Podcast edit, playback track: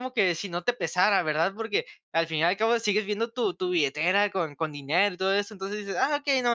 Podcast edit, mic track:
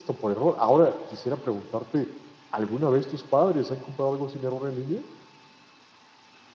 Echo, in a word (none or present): none